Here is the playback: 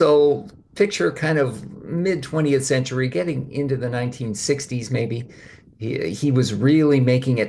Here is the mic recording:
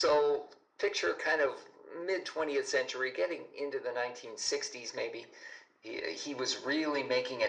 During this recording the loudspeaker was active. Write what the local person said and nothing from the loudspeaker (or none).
none